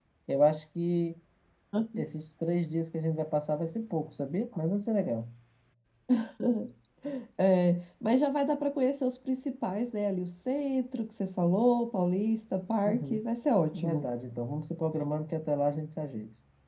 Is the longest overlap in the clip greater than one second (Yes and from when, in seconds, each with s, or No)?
No